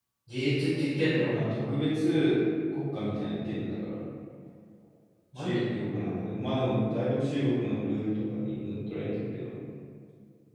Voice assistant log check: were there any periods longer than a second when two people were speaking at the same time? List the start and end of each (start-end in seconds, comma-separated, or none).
none